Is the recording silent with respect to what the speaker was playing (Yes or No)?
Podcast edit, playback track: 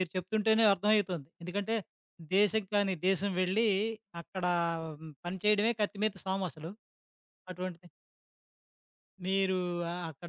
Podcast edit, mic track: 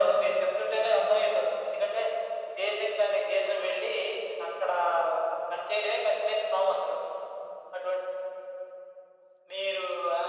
No